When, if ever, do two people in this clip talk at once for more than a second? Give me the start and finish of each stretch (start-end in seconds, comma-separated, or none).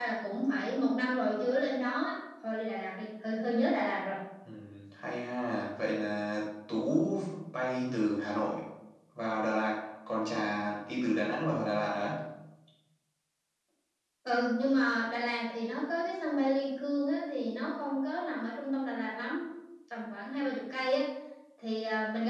none